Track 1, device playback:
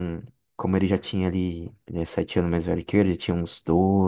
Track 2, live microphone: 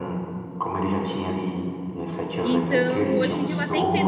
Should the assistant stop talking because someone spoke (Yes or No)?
Yes